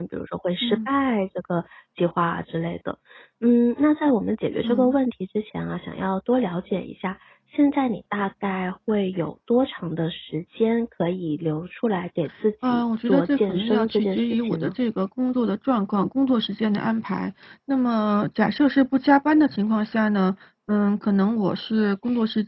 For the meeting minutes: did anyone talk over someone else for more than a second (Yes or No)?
Yes